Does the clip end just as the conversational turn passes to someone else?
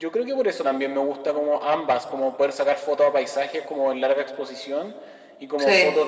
No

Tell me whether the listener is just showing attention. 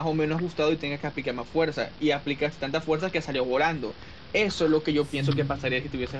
Yes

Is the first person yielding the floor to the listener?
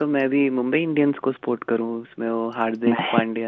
No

